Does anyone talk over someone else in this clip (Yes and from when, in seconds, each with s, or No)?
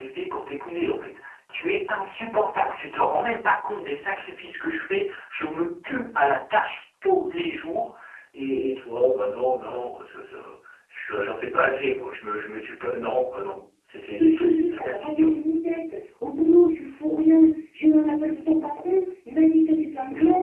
Yes, from 14.0 s